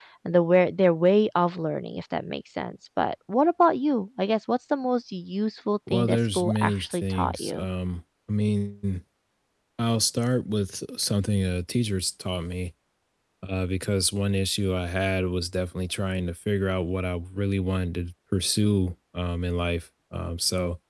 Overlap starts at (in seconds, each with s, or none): 5.9 s